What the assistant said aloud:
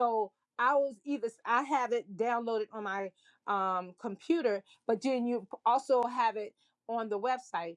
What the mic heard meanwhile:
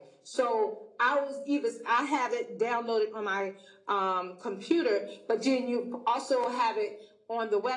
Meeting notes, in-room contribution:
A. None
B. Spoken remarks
A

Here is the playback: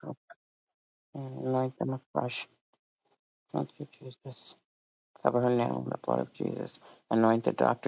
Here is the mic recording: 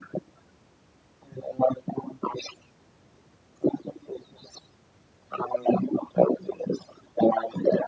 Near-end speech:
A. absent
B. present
A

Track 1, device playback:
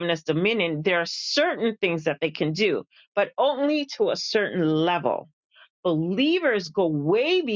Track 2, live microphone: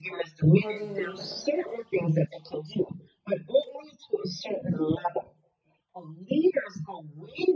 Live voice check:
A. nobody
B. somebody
B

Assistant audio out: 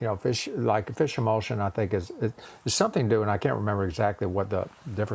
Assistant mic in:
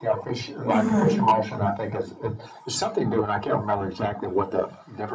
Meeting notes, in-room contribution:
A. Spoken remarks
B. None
A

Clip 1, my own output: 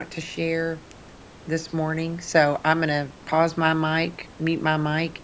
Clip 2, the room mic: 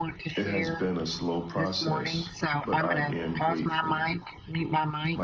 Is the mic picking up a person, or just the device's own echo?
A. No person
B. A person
B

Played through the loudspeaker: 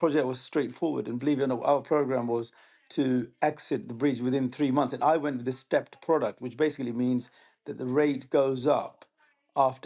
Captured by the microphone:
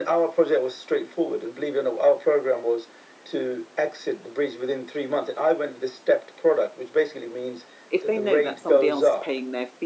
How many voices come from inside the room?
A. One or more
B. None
A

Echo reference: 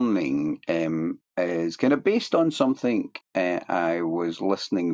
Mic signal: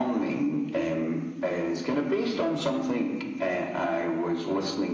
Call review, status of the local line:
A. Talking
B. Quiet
B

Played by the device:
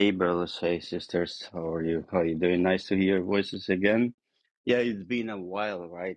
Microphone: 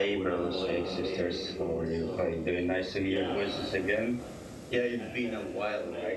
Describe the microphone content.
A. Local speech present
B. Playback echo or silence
A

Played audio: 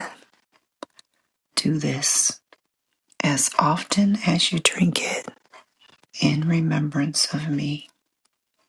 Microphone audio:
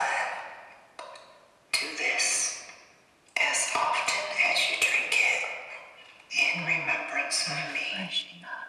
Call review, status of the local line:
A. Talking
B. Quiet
A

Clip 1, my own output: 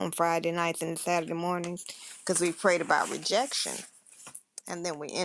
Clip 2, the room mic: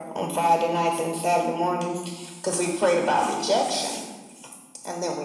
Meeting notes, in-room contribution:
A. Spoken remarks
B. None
B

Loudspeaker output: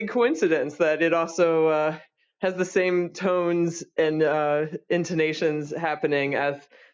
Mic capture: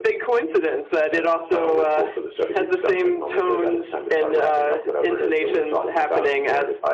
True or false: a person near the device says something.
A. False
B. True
B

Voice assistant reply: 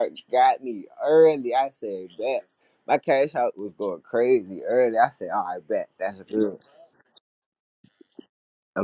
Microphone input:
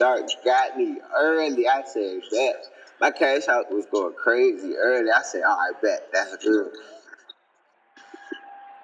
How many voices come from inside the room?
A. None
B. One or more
A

